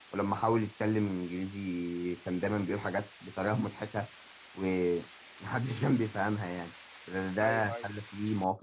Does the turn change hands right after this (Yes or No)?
No